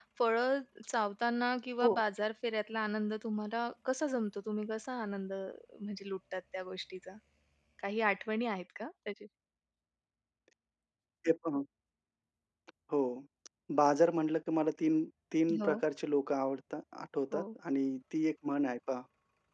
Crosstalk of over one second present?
No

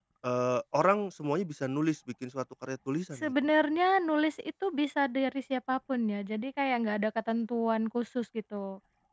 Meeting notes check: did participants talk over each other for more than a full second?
No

